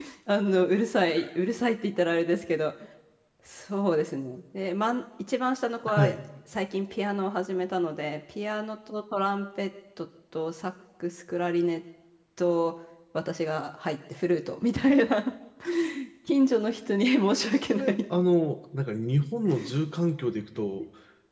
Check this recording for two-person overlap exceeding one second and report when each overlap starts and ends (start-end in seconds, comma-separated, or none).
none